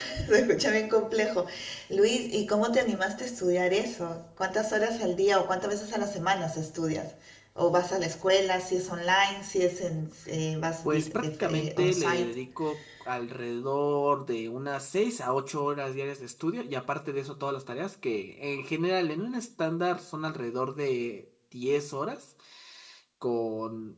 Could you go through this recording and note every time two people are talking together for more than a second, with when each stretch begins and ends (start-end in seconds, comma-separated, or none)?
10.8-12.3